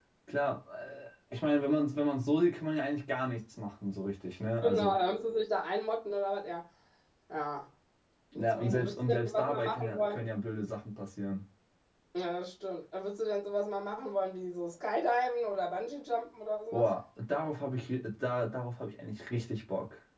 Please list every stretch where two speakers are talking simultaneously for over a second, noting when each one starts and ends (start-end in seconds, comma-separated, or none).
8.4-10.3